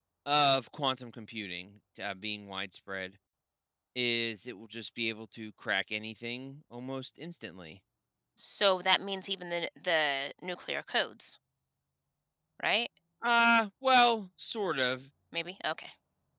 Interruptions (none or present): none